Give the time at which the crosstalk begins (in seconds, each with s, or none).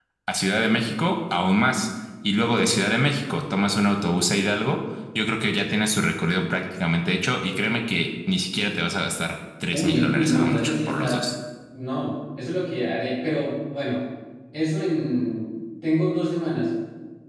9.7 s